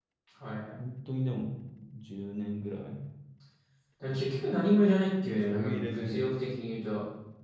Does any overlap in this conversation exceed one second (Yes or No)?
Yes